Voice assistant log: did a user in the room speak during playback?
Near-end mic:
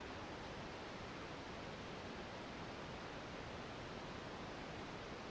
No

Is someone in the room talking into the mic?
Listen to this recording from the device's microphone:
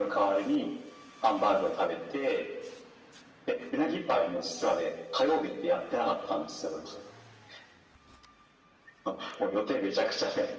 No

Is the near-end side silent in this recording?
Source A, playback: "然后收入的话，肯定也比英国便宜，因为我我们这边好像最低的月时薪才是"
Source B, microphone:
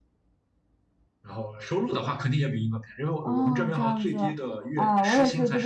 No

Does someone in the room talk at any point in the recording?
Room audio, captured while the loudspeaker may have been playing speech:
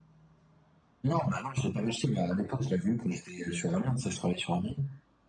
No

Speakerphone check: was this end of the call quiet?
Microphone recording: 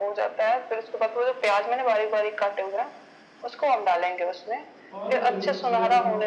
No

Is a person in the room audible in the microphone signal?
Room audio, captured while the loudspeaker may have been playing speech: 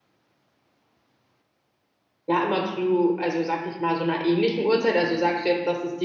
Yes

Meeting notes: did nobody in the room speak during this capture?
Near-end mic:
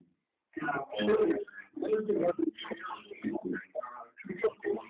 Yes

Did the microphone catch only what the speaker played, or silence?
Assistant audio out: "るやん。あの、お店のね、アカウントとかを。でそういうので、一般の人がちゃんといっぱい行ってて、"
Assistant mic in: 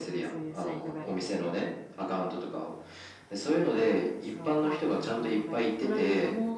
No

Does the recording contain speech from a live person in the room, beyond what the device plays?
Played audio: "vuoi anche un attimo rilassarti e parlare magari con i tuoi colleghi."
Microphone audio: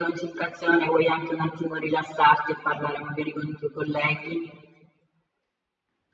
No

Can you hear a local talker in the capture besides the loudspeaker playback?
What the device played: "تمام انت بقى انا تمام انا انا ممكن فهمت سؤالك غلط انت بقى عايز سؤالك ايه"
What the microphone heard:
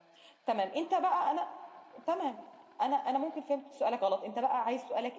No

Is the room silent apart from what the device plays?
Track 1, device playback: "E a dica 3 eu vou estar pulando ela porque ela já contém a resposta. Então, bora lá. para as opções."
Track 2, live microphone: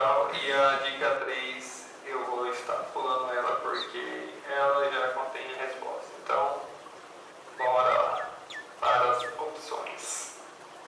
Yes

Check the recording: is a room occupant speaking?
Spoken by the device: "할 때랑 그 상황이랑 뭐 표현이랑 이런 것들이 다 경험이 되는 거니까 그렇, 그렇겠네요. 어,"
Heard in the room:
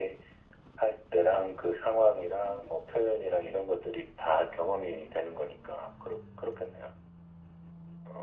No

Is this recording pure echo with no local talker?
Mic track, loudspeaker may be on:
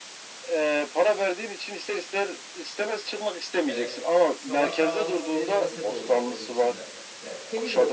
No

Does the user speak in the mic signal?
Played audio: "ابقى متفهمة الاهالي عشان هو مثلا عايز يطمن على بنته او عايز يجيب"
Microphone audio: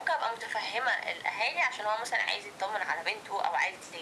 No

